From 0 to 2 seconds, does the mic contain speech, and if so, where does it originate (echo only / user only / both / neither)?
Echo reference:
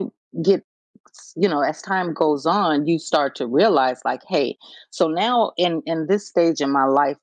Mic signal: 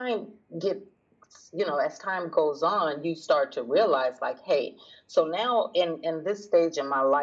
echo only